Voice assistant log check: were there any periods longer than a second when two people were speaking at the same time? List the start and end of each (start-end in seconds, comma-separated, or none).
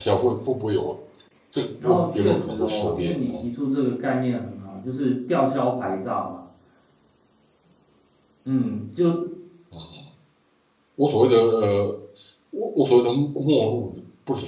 1.8-3.3